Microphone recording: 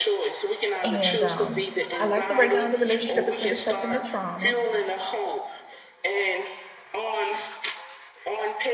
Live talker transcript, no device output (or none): And um, I like the breakdown of the relationship between the trust and the trauma.